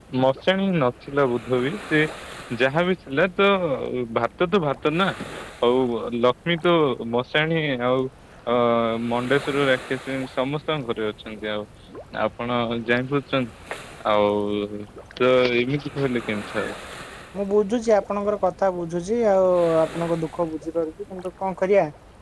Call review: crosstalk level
none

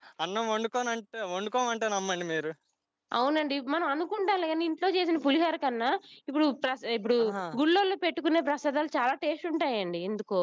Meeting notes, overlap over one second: none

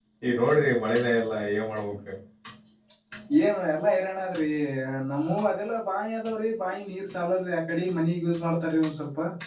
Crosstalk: none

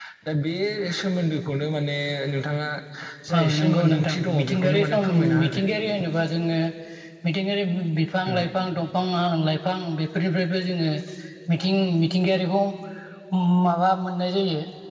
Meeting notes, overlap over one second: present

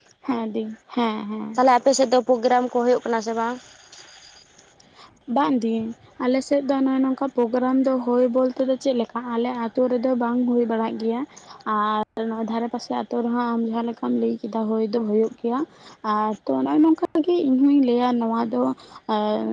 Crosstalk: none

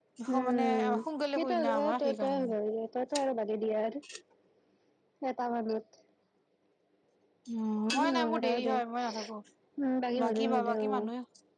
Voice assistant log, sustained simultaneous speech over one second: present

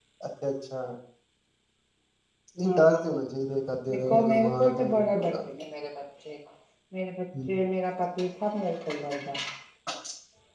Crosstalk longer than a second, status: present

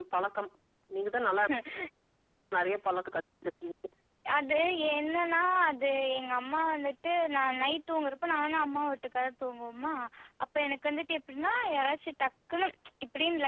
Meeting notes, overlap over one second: none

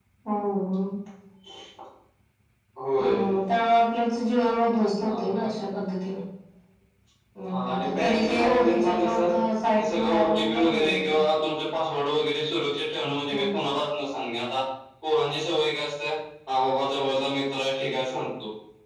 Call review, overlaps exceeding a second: present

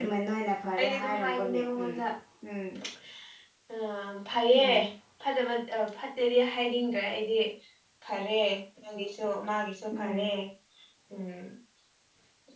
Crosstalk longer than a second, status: present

